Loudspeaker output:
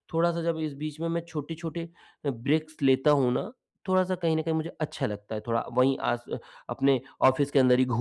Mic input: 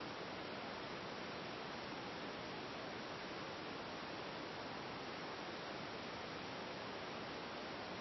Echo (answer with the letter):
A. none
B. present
A